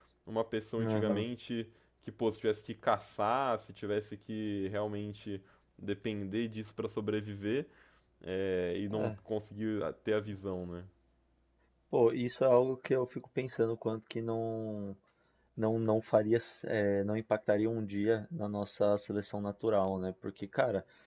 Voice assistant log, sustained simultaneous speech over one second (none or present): none